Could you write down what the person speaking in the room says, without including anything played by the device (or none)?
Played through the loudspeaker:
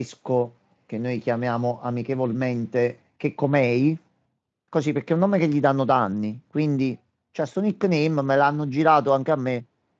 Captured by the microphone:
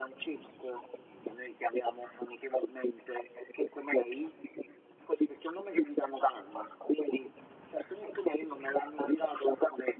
none